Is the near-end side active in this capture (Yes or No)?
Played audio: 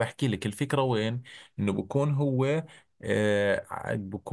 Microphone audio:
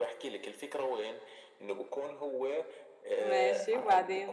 Yes